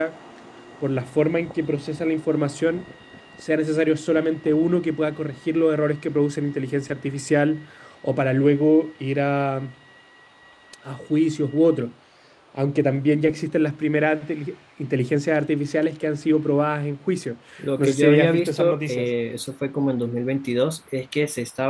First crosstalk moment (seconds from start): 18 s

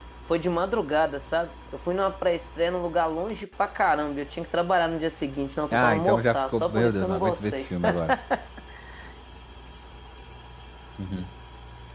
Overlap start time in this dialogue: 6 s

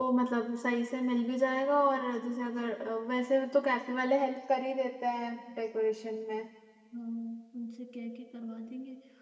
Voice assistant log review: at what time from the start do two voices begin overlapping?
none

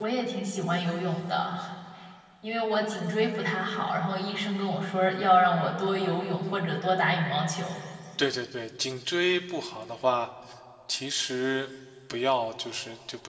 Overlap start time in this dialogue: none

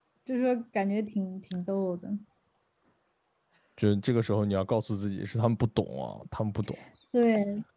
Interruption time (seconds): none

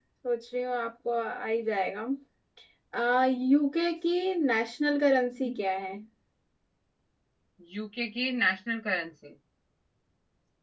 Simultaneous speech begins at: none

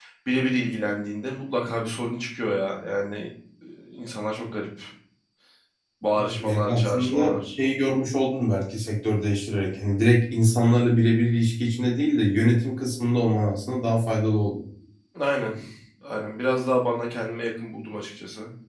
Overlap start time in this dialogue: 6 s

